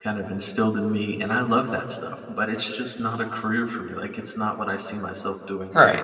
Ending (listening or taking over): taking over